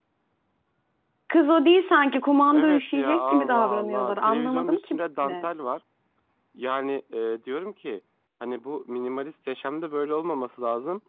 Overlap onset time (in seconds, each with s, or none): 2.5 s